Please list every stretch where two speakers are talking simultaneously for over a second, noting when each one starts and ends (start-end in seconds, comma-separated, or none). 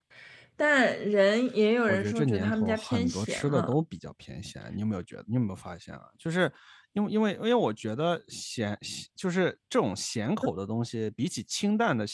1.9-3.7